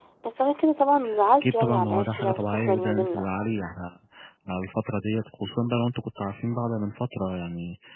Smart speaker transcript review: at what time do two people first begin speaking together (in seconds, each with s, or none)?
1.4 s